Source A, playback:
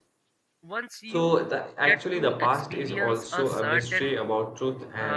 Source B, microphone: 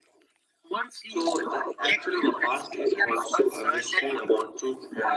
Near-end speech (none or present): none